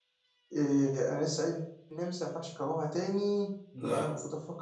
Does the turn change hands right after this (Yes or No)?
No